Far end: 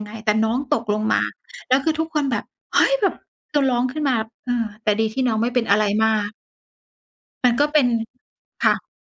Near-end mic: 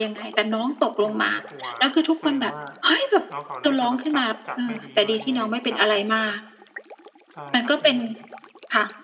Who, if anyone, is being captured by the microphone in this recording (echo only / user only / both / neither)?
both